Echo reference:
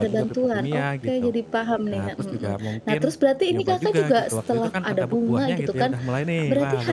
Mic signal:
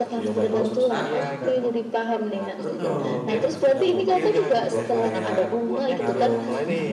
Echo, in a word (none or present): present